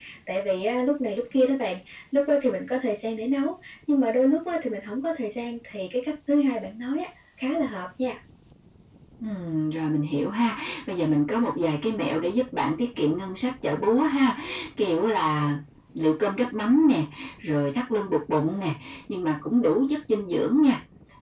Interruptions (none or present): none